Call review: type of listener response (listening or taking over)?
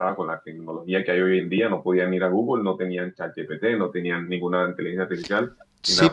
taking over